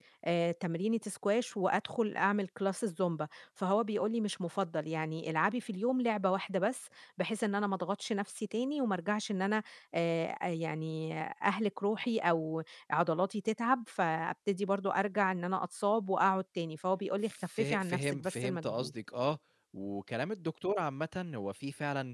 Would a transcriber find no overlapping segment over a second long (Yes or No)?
No